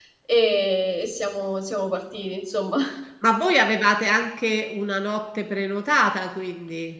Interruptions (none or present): none